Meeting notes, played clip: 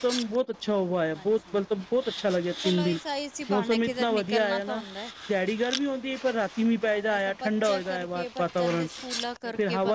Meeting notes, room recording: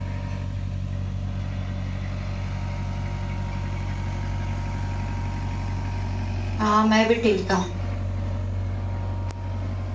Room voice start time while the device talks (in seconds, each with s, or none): 6.6 s